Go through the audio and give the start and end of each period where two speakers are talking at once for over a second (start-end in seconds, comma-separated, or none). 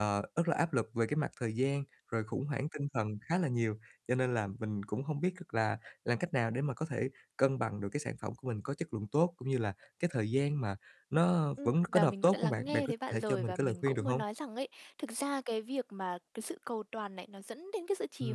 11.7-14.2